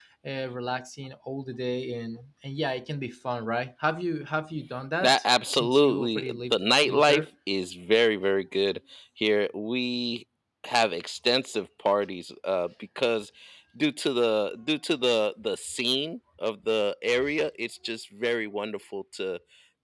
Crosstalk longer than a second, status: present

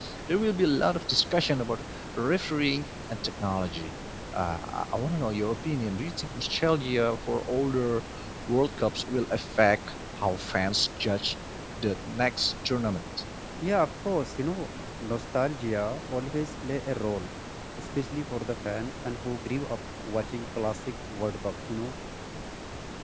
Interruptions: none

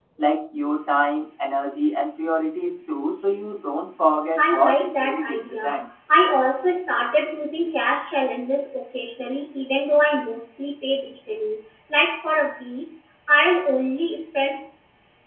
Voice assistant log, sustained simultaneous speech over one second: present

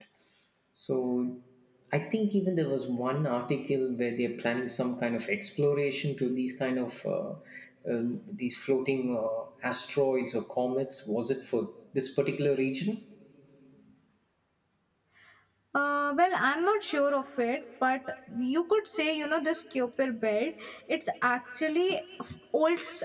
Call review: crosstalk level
none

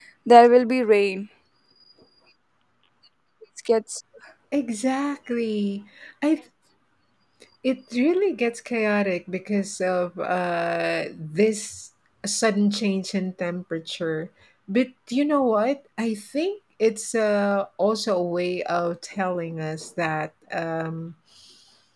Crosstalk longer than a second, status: none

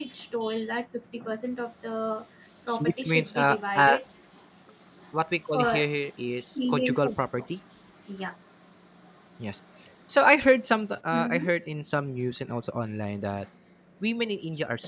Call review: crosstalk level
present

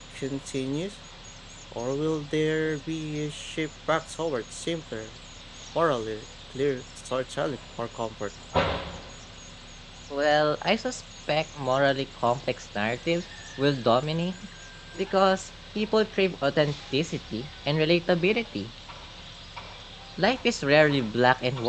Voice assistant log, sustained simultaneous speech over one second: none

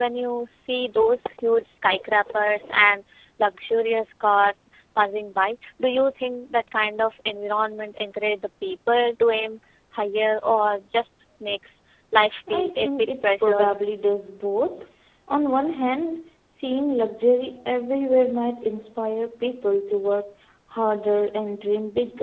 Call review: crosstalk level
present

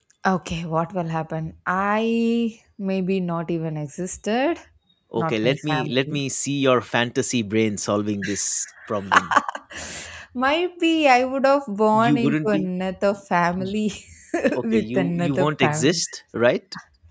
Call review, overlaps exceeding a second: present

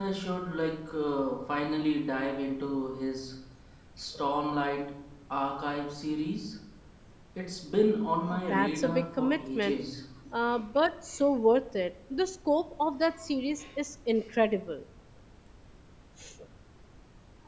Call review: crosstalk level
present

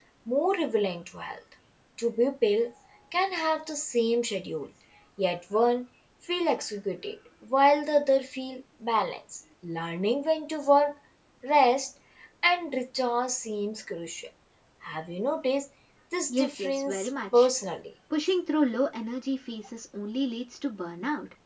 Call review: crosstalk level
present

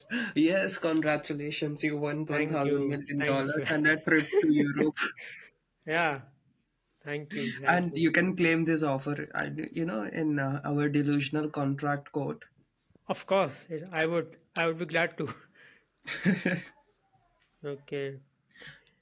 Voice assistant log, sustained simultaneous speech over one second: present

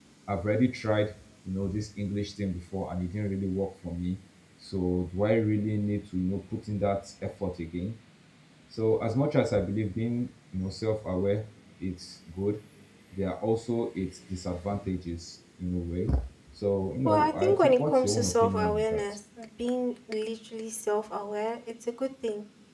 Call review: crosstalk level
present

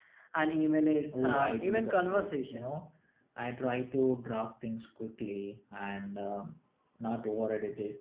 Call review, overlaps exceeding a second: present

